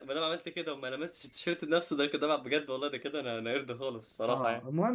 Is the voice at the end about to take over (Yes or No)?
Yes